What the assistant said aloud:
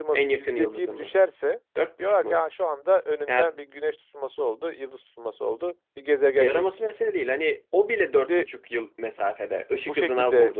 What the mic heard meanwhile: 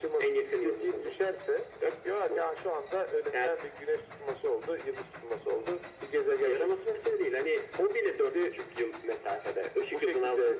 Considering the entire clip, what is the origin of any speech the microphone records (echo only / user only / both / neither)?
echo only